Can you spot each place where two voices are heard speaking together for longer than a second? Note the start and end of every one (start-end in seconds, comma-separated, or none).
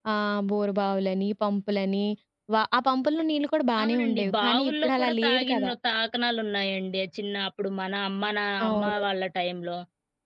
3.8-5.7